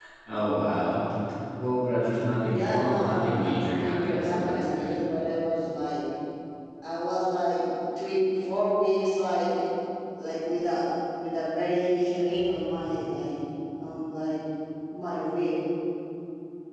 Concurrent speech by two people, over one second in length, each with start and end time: 2.4-4.9

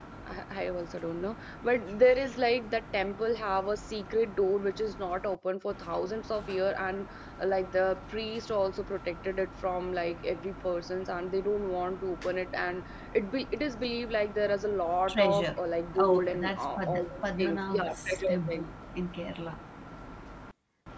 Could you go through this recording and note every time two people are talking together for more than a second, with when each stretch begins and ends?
16.0-18.6

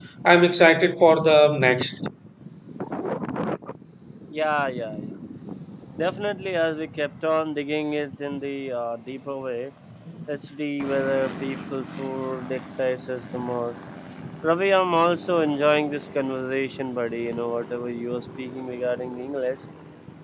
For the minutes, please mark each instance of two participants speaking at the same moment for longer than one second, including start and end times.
none

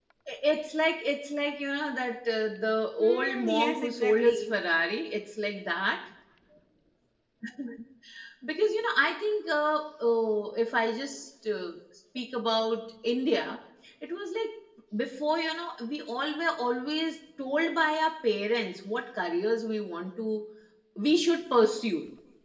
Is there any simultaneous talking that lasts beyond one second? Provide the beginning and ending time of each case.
3.0-4.5

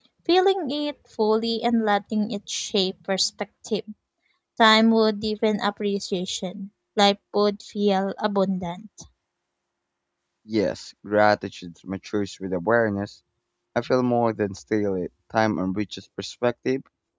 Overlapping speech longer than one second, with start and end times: none

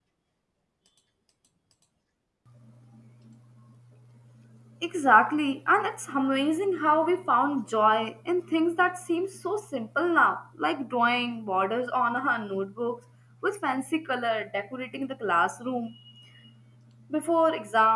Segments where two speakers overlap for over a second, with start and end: none

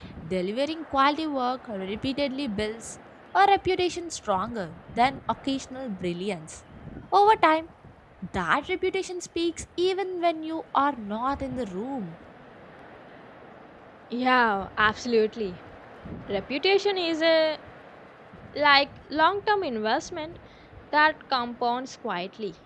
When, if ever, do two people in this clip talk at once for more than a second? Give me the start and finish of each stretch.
none

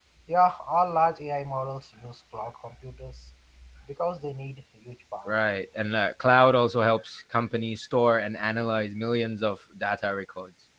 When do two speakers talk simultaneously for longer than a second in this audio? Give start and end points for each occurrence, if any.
none

